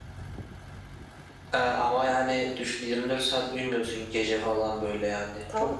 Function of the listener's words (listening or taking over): taking over